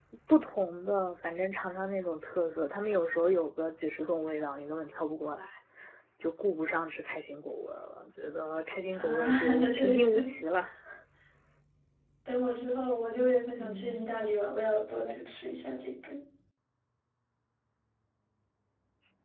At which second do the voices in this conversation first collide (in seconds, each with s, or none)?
8.9 s